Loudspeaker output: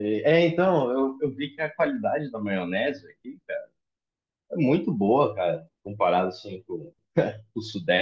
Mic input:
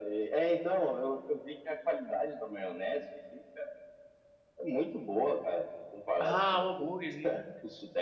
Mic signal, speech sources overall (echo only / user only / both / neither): both